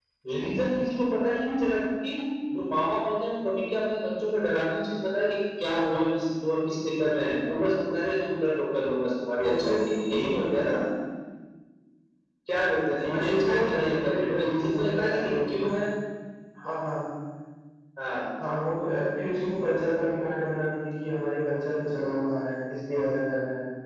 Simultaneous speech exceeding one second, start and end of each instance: 13.0-15.8

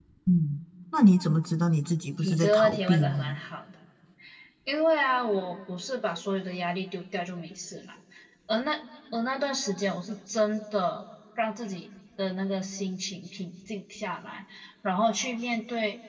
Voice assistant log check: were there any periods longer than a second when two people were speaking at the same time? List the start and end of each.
2.1-3.4

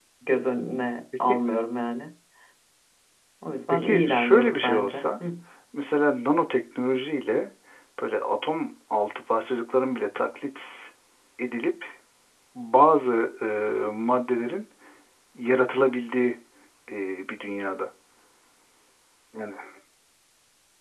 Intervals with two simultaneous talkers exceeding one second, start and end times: 3.7-5.0

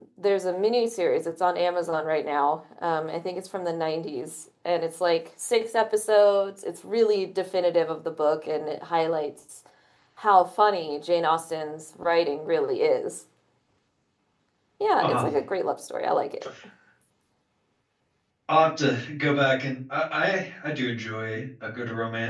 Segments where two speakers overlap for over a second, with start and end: none

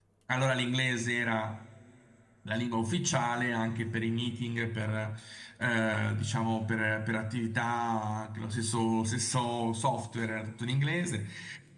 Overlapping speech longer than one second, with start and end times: none

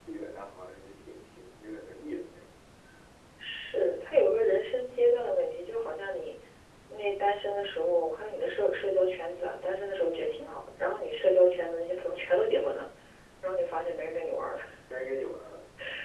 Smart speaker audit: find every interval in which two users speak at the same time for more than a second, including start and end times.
none

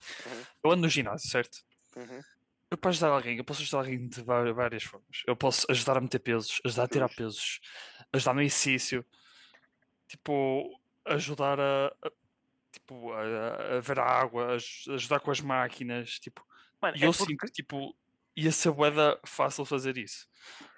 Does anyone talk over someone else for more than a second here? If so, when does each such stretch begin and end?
none

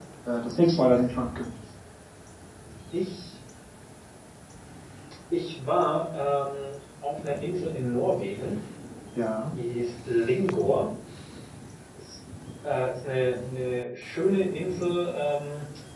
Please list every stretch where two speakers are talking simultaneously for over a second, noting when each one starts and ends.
none

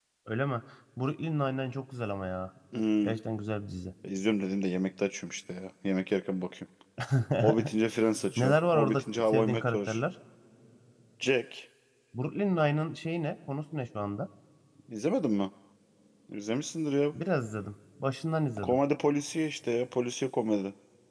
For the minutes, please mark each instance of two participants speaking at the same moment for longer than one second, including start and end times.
8.4-10.0

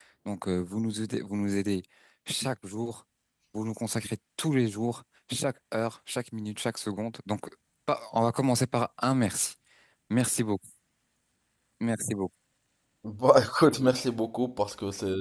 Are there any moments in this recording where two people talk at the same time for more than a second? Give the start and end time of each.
none

